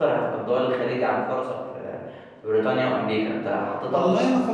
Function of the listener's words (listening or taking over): taking over